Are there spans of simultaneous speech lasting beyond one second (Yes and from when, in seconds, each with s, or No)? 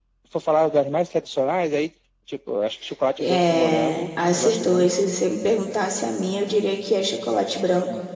Yes, from 3.2 s